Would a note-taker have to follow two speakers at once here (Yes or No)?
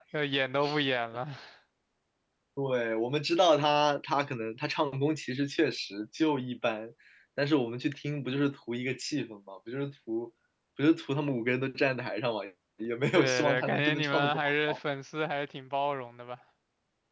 Yes